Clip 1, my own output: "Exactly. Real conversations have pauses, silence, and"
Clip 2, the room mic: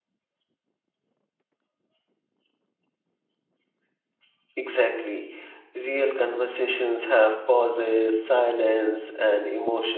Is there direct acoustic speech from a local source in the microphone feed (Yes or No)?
No